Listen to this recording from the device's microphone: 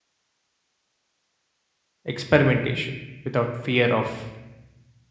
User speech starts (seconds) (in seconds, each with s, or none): 2.0 s